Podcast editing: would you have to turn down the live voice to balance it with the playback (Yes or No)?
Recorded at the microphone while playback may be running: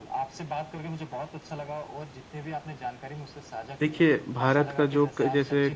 Yes